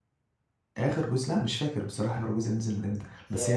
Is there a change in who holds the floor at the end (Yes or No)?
No